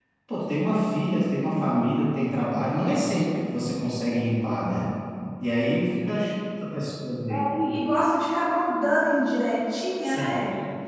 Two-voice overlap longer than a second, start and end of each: none

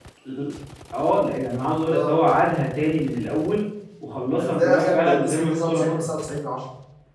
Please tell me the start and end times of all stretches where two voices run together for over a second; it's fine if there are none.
4.4-6.1

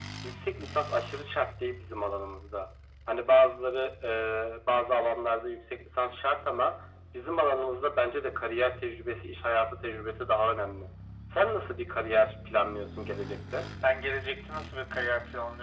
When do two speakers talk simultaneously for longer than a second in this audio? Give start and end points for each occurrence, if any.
none

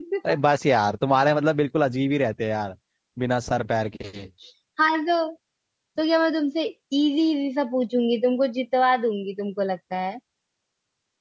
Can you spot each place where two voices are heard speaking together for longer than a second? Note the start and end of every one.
none

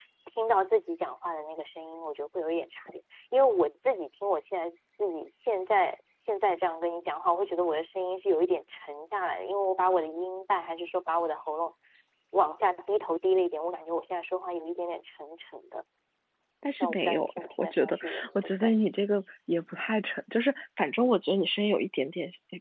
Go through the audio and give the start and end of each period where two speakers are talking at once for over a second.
16.8-18.7

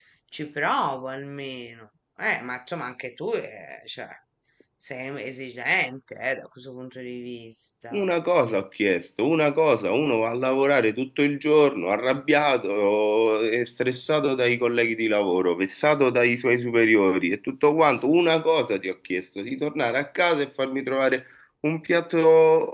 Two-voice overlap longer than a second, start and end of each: none

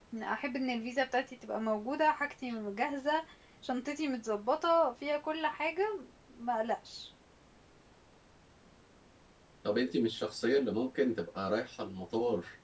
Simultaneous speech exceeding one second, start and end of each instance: none

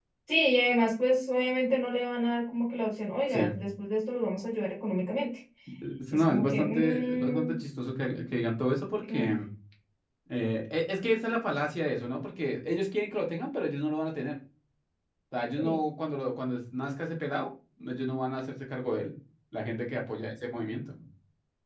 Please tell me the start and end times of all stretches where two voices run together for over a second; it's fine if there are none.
6.1-7.6

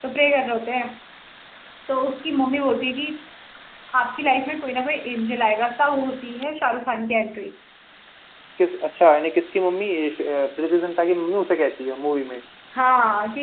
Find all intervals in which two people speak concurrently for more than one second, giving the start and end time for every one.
none

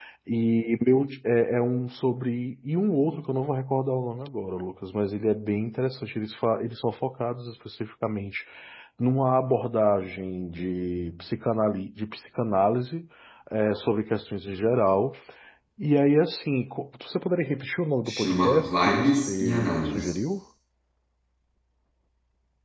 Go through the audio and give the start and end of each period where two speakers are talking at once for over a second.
18.1-20.1

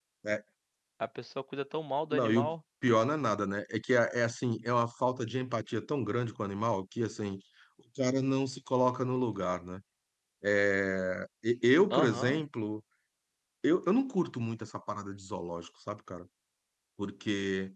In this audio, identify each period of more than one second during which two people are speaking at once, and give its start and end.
none

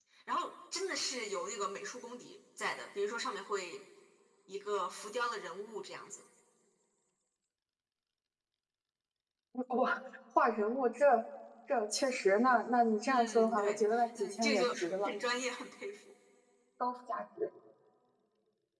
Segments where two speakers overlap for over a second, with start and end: 13.1-14.6

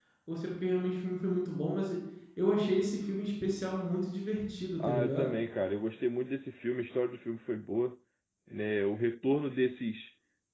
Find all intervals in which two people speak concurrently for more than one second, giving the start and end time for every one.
none

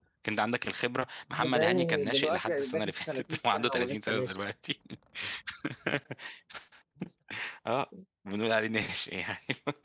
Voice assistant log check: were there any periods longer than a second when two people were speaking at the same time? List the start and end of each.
1.3-4.4

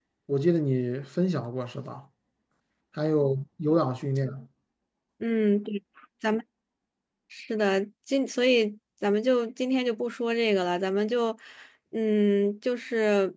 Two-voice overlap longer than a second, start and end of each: none

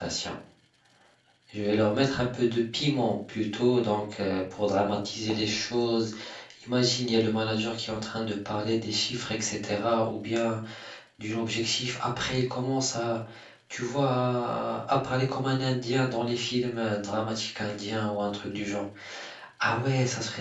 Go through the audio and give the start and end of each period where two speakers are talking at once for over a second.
none

